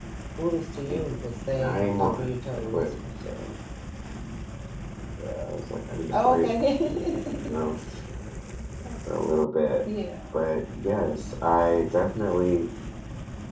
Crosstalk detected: Yes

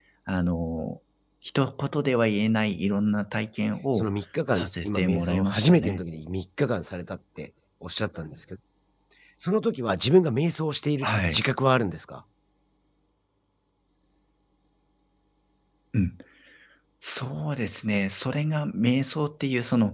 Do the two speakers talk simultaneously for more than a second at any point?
Yes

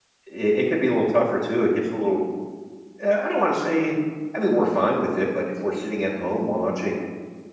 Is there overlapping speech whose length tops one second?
No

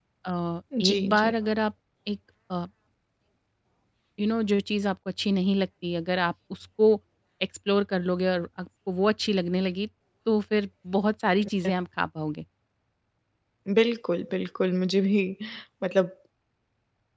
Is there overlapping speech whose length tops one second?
No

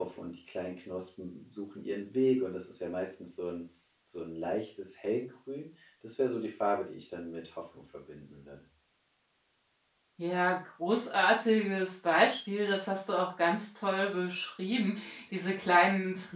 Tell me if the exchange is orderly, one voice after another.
Yes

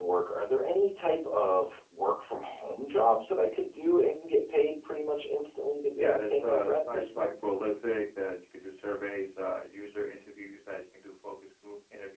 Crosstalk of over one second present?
Yes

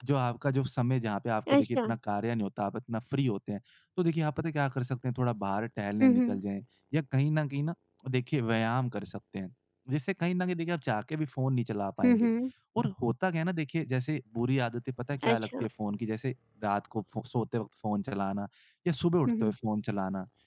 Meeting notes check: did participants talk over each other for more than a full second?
No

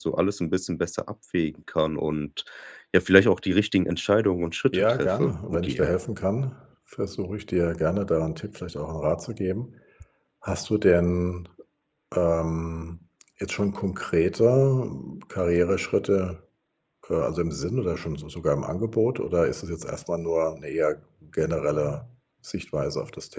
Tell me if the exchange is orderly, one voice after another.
No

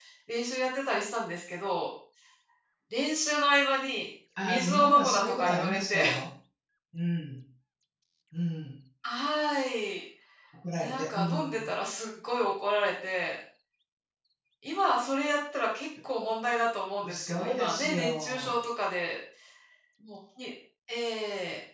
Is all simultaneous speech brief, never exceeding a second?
No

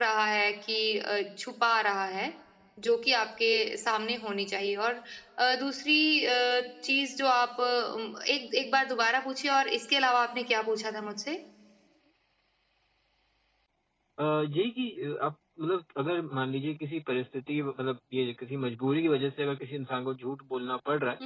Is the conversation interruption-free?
Yes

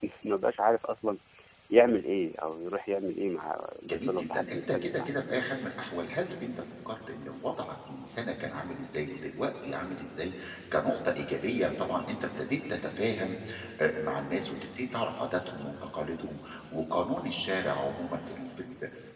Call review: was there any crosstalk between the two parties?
Yes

